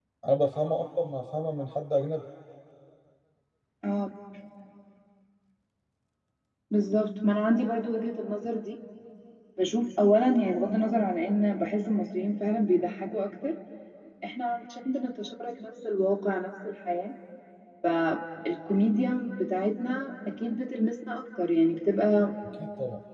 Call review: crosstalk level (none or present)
none